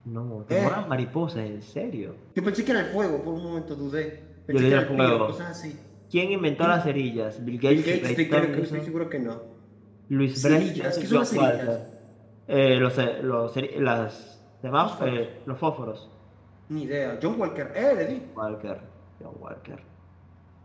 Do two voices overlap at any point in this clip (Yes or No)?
Yes